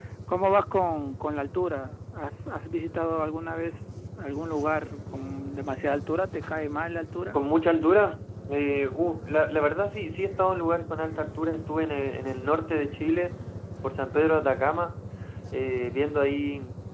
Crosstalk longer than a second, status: none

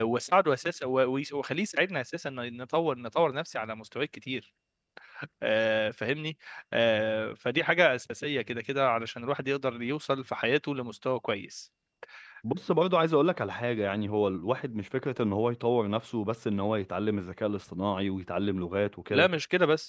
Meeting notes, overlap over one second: none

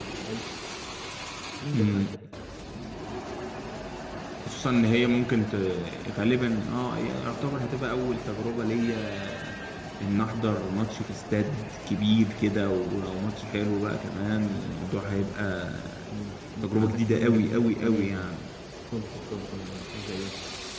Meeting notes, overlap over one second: present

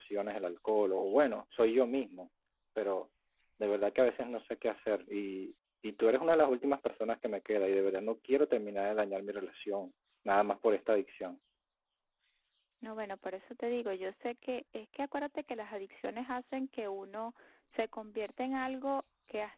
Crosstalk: none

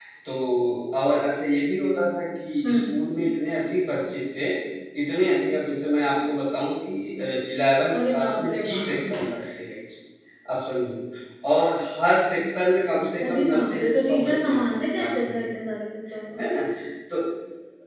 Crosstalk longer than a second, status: present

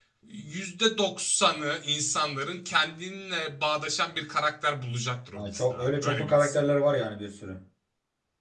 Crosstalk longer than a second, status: present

